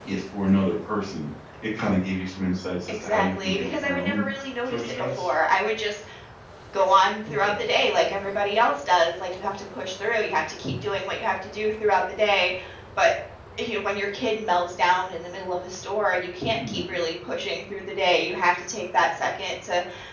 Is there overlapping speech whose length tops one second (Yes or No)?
Yes